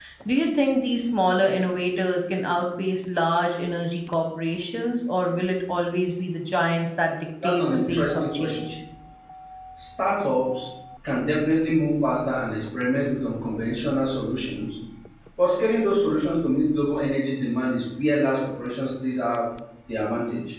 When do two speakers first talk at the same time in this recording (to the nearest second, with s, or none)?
7 s